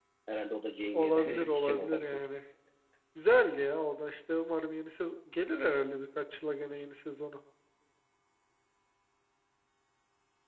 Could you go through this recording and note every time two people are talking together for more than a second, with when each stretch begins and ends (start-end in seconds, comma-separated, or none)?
0.9-2.2